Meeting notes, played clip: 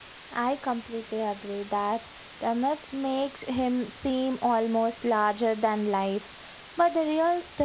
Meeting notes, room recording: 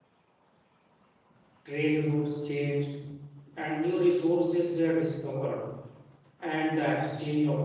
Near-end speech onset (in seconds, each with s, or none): 1.6 s